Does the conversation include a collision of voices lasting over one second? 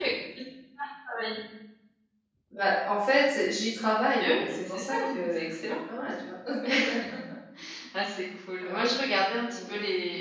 Yes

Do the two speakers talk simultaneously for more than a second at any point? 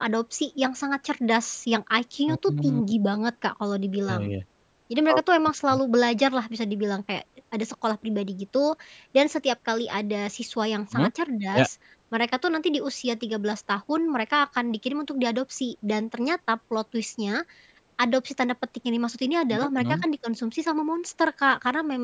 No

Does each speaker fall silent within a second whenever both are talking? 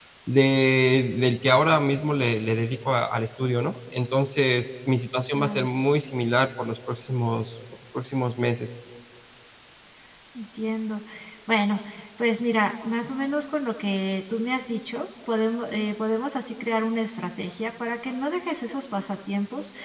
Yes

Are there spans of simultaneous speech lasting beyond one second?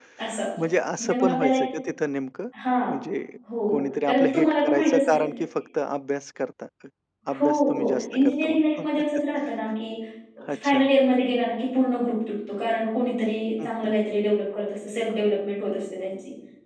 Yes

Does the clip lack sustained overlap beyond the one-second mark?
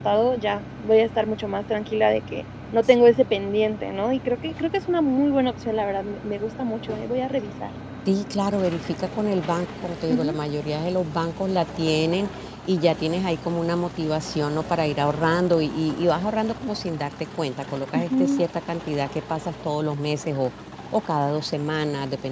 Yes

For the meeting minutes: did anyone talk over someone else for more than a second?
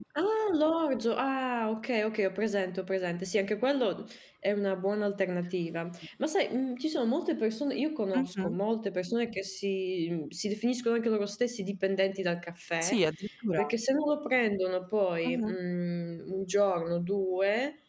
No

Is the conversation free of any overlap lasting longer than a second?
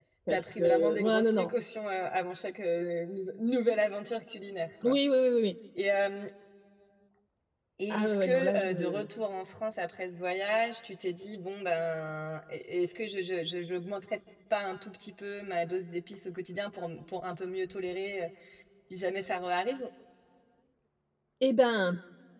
No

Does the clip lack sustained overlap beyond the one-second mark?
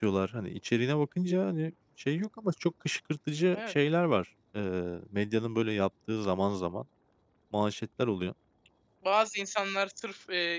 Yes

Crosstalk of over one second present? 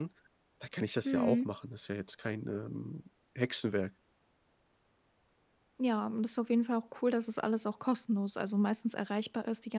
No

